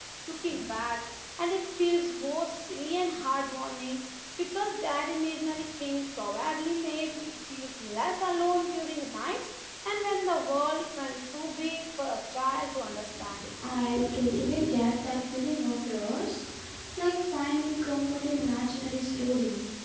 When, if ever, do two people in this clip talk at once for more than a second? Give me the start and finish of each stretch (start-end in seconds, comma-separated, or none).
none